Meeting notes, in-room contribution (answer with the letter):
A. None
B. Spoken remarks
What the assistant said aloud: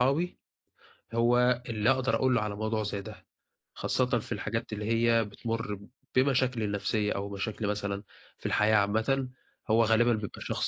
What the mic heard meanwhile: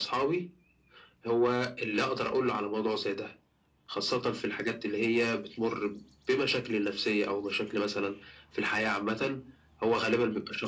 A